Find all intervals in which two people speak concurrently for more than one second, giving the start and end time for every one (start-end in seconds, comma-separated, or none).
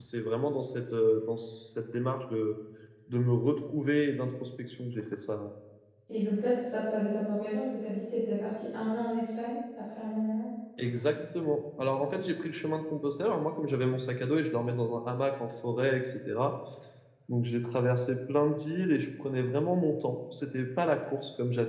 none